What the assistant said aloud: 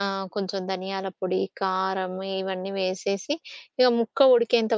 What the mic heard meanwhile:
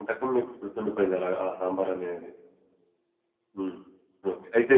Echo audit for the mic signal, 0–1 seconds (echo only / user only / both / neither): user only